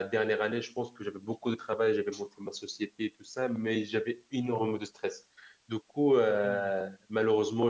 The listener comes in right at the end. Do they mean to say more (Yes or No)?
No